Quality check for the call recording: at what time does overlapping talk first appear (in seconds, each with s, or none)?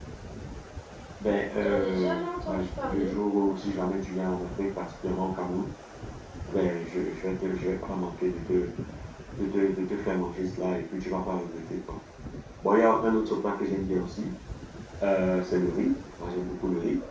1.6 s